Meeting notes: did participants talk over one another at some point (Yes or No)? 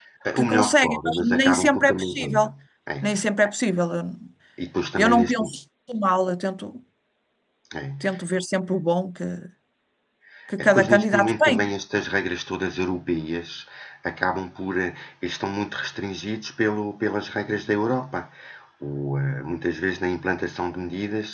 Yes